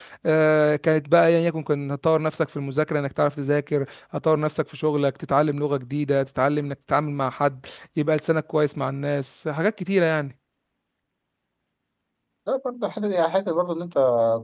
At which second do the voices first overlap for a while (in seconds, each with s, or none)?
none